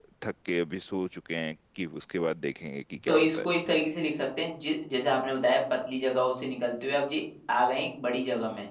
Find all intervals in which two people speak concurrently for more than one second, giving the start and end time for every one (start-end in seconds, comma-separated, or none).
none